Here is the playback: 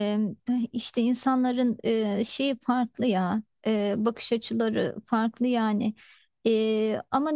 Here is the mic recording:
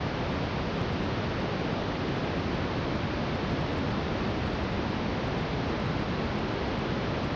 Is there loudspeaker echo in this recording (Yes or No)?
No